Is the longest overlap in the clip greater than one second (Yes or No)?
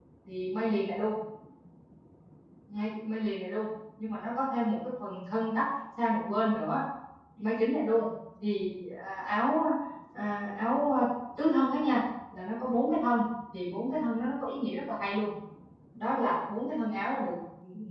No